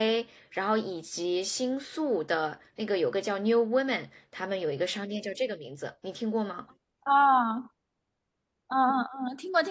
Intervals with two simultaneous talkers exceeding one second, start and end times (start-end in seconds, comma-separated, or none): none